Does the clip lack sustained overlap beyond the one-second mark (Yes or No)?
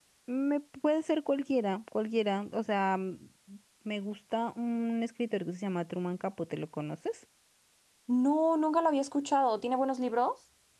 Yes